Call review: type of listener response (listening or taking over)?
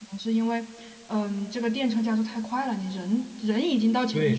taking over